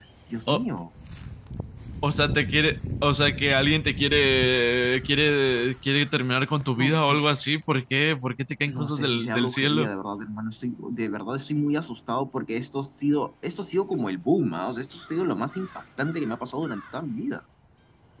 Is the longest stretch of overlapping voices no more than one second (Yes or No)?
No